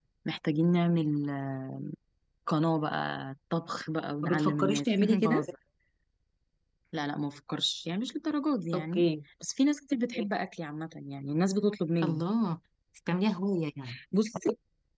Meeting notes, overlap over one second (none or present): present